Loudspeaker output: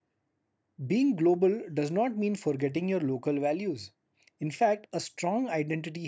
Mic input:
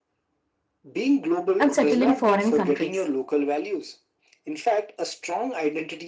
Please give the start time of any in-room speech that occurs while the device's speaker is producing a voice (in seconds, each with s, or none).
1.6 s